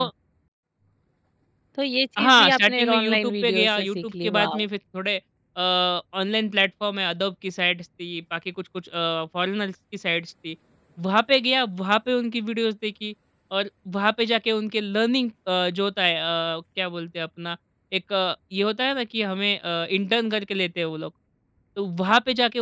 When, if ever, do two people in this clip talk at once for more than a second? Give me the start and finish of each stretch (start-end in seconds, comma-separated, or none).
2.2-4.6